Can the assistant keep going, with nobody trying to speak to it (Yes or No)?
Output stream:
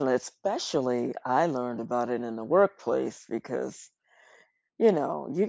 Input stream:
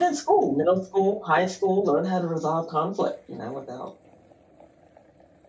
No